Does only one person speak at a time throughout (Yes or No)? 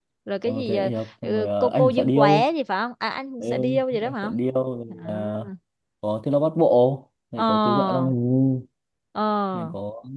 No